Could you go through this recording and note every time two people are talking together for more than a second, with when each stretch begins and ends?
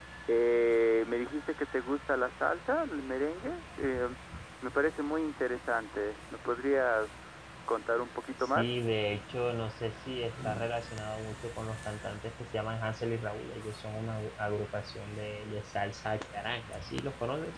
none

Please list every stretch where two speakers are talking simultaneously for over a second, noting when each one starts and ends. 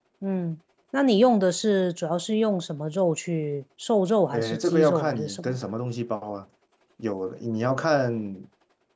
4.3-5.6

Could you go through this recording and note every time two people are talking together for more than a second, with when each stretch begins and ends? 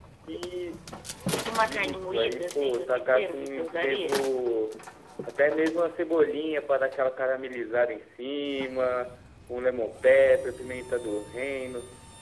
1.6-4.2

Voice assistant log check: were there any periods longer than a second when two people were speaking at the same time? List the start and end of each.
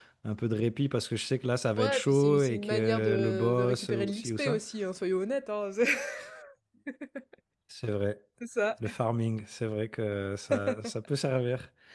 1.8-4.6

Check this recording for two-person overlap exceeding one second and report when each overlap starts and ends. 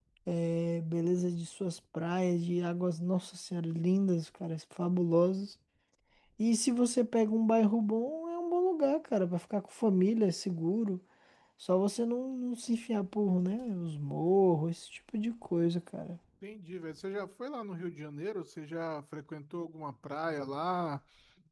none

